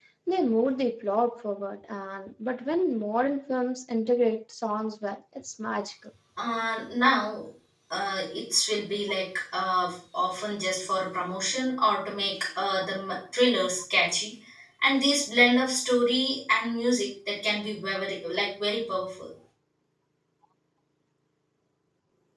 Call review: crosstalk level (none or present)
none